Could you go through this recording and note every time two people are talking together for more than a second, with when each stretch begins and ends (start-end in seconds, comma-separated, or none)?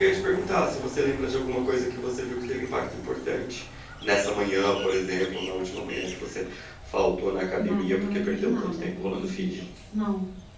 7.6-9.6